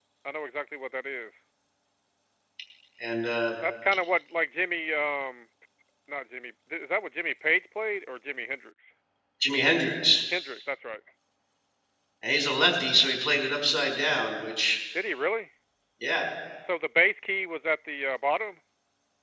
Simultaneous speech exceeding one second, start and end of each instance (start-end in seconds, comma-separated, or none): none